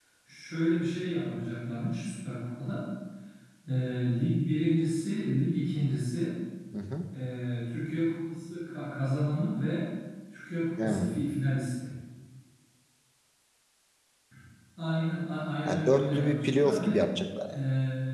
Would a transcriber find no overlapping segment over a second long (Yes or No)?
No